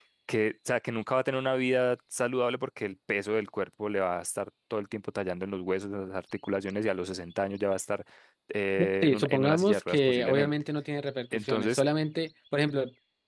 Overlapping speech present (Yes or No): Yes